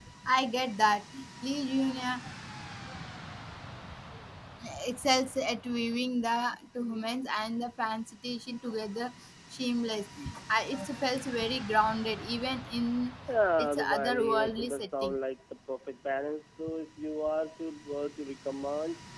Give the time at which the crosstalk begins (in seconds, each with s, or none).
13.6 s